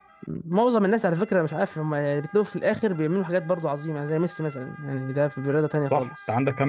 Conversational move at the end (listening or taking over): taking over